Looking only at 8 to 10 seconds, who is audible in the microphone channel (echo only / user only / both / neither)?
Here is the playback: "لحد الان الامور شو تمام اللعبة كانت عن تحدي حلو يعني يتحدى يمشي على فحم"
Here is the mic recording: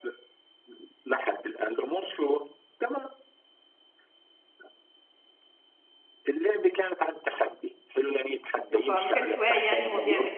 both